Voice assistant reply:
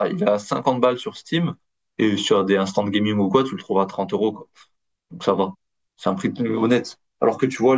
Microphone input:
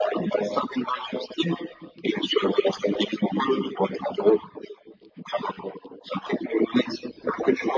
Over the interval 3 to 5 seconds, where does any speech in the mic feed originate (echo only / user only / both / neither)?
echo only